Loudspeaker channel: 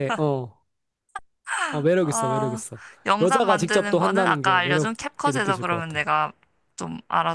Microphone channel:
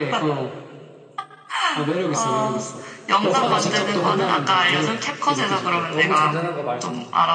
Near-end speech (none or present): present